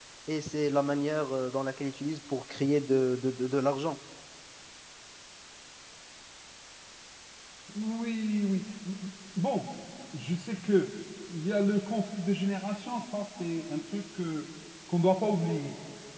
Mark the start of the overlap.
none

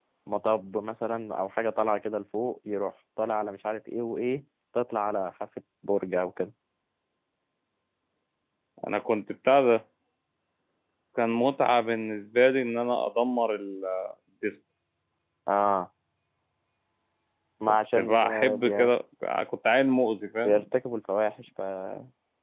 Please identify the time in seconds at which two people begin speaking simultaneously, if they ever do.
17.7 s

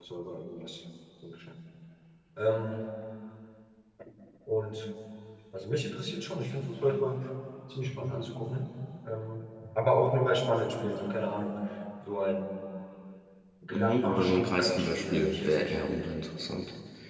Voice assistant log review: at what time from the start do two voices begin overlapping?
13.7 s

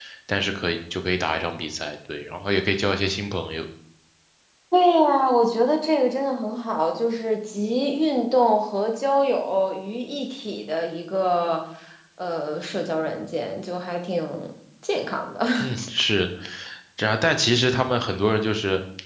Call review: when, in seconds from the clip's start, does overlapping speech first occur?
none

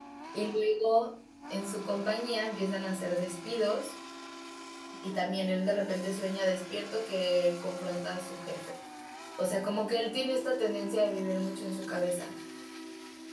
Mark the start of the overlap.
none

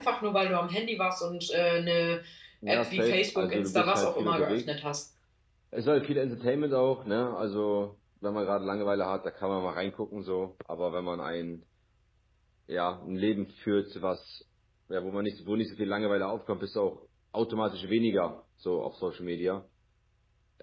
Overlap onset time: 2.7 s

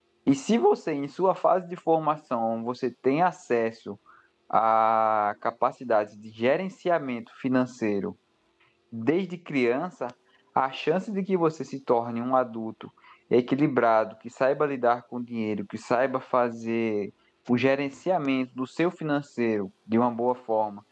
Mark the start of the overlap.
none

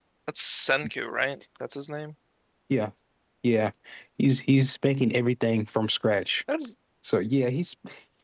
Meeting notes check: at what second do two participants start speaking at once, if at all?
none

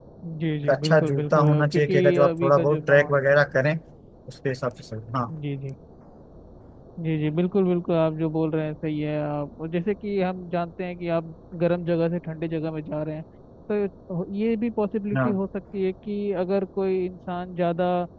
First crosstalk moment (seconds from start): 0.6 s

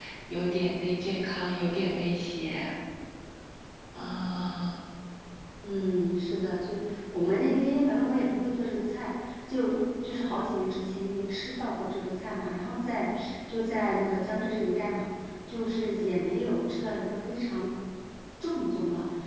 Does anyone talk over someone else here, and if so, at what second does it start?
none

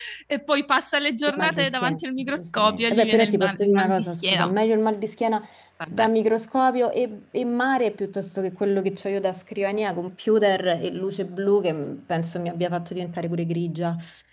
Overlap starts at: 1.3 s

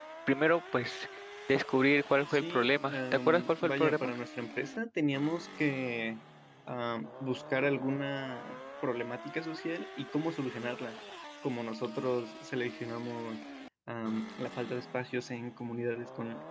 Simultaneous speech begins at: 2.2 s

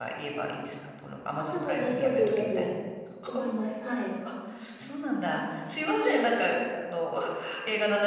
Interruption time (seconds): 1.4 s

